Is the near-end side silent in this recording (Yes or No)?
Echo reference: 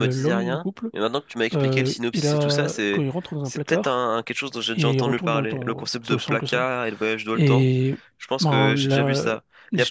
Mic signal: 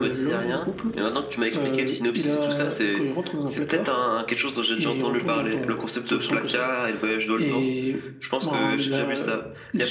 Yes